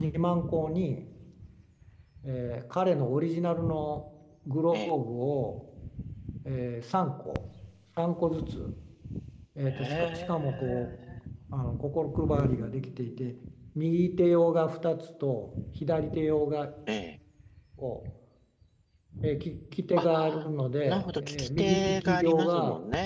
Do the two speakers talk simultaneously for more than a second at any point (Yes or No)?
Yes